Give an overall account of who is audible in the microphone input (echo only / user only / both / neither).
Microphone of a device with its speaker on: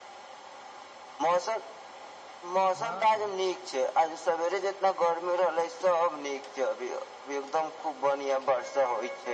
both